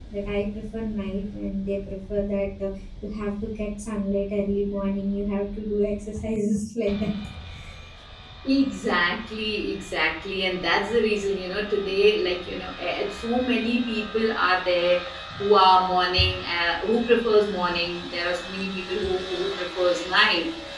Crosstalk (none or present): none